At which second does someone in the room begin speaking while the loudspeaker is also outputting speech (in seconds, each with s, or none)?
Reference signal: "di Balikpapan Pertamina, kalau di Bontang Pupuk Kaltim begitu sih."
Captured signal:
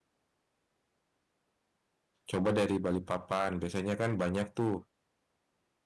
2.3 s